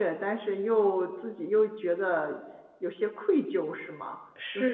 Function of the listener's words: taking over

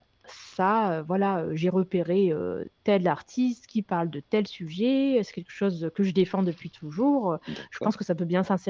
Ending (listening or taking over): listening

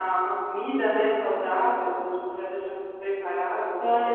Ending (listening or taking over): taking over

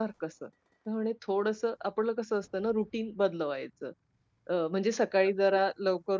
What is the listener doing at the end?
listening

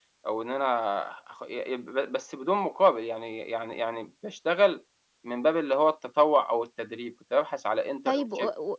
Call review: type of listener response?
taking over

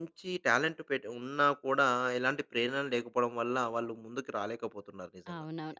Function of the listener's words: taking over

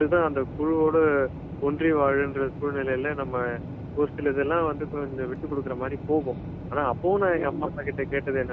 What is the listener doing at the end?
listening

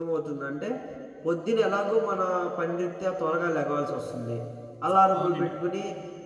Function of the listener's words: listening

